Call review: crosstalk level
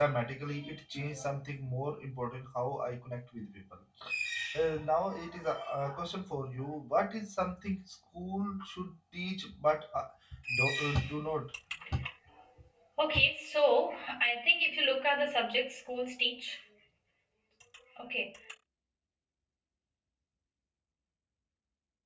none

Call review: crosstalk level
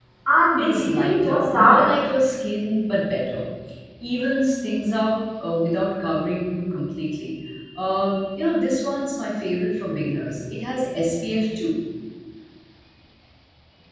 present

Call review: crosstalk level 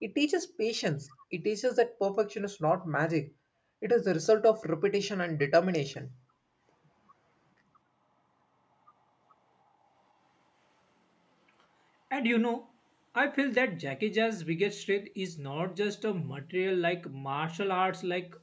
none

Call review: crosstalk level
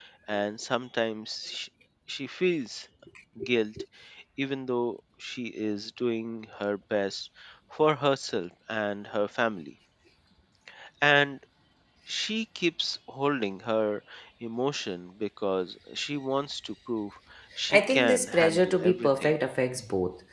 present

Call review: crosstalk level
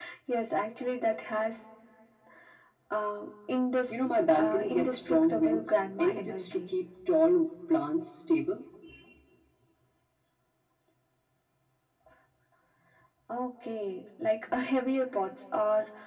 present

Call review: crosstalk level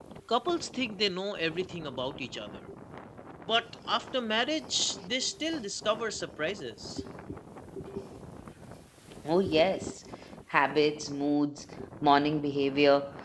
none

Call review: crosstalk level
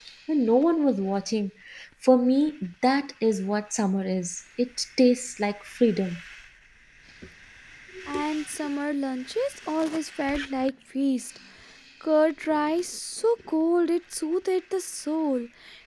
none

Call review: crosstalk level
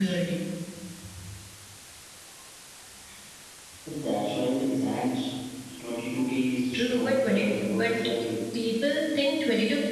present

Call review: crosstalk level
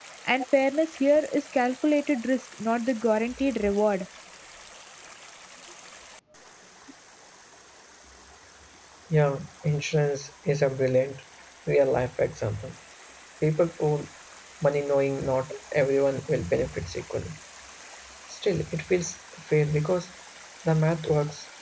none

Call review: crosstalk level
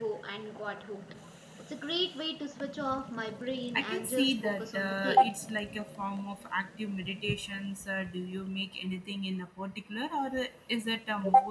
present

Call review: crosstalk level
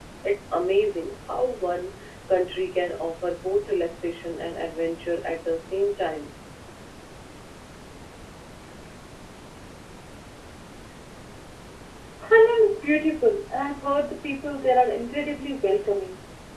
none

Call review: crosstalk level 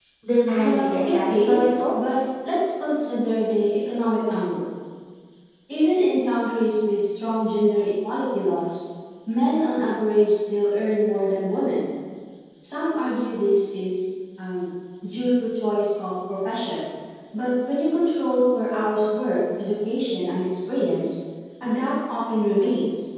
present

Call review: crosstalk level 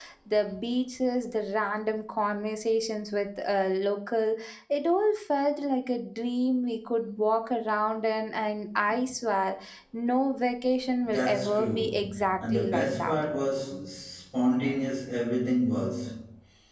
present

